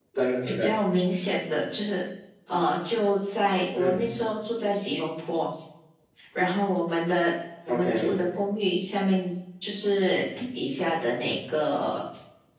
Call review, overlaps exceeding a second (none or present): none